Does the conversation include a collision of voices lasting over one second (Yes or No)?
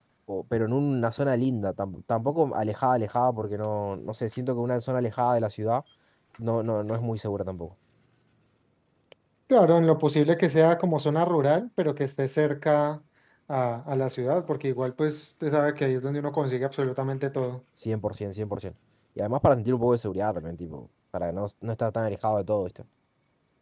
No